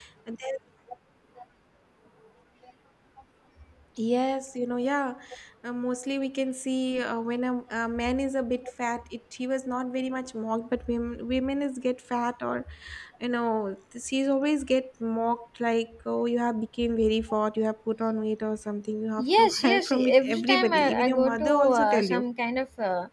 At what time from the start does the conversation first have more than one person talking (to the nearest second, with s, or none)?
19 s